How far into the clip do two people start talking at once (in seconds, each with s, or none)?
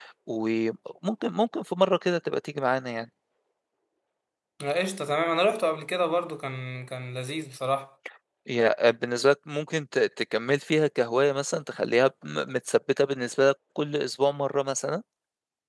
none